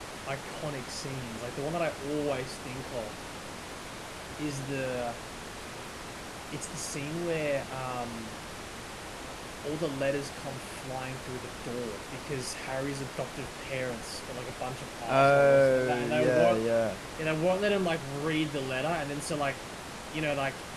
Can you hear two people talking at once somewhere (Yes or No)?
Yes